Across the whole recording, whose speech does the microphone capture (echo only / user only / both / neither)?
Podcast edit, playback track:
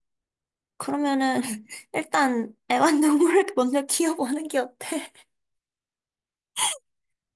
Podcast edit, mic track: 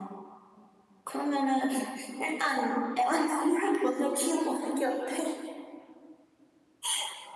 echo only